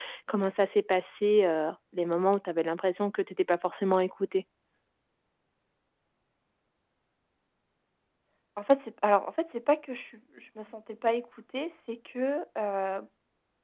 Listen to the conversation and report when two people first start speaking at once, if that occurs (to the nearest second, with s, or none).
none